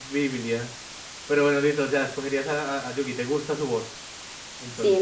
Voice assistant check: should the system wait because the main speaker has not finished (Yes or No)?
No